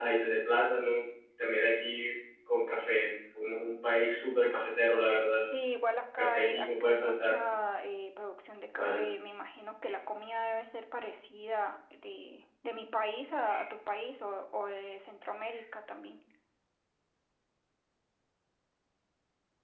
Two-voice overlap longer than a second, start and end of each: 6.2-7.4

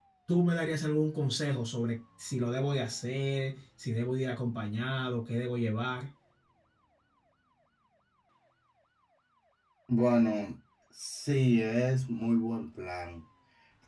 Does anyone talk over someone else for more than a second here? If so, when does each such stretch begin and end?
none

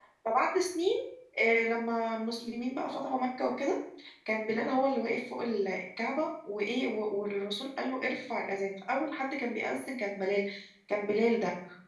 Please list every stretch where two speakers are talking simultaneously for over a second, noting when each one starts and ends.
none

